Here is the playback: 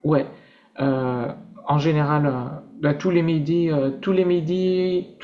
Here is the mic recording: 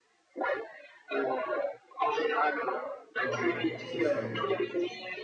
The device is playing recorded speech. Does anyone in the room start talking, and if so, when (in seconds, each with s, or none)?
3.2 s